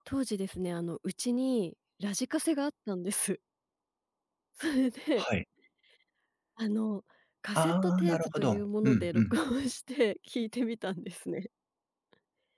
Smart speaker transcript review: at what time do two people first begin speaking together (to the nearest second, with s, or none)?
8 s